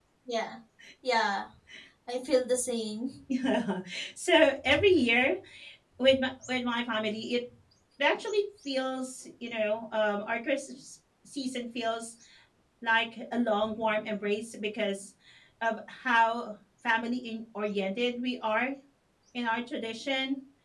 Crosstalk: none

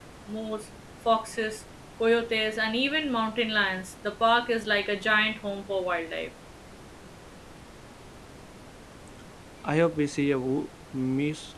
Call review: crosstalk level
none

